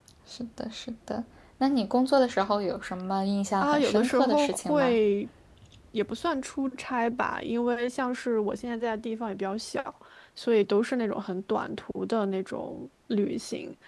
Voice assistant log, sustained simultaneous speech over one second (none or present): present